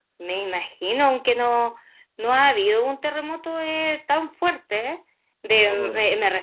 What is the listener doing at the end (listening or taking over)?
listening